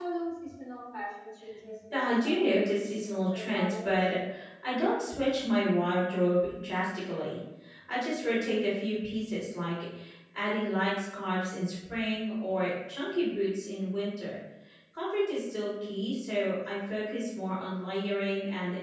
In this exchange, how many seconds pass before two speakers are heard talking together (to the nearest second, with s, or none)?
2 s